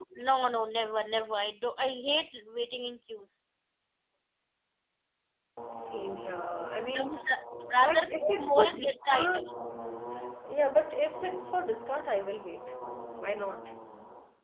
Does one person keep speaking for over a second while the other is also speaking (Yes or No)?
Yes